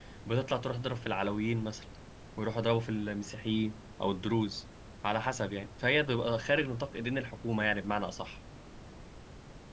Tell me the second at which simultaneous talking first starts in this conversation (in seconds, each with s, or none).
none